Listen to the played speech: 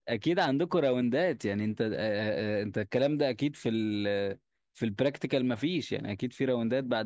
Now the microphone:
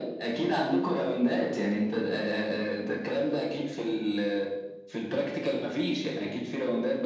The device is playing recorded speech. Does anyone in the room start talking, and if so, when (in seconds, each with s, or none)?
none